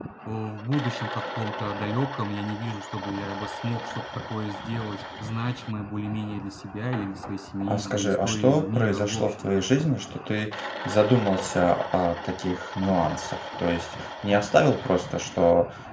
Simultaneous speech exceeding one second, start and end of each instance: 7.7-9.5

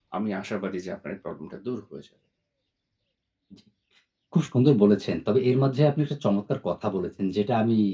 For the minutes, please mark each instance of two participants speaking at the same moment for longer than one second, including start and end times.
none

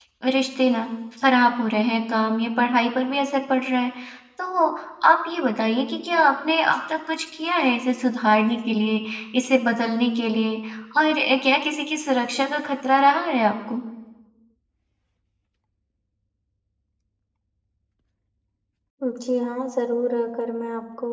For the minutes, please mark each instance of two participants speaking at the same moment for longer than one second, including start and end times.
none

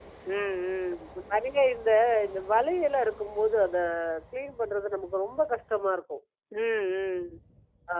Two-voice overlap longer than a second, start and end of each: none

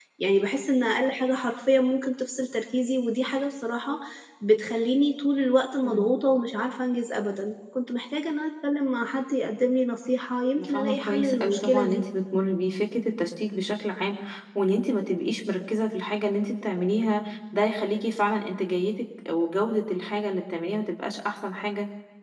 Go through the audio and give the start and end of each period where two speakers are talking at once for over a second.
10.6-12.0

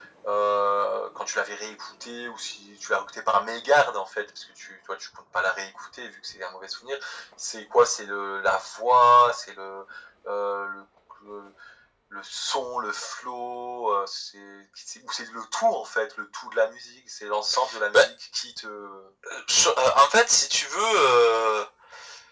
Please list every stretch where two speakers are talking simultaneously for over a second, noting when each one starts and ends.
none

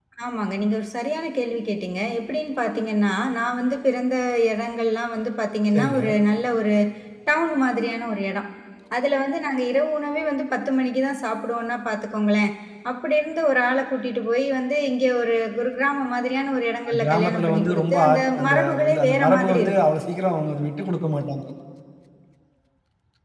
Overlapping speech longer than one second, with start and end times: 17.0-19.7

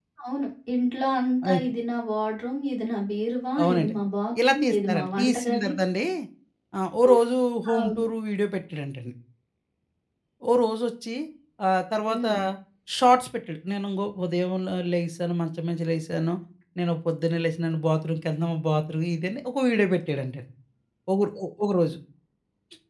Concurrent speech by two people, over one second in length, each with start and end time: 4.5-5.7

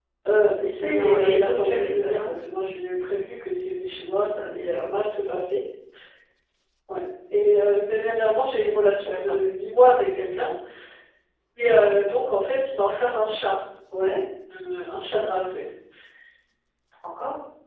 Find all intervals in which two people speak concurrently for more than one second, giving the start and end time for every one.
0.7-2.3

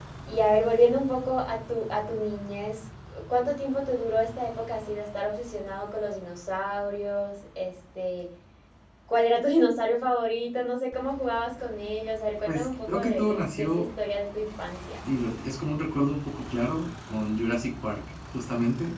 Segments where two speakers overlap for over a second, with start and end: 12.5-13.8

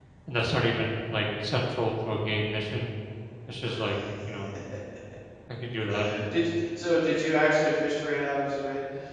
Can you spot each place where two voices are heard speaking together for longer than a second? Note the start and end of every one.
none

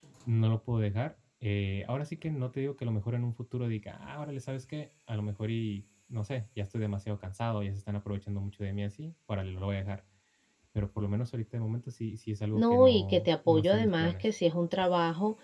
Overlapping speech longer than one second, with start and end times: 12.5-14.2

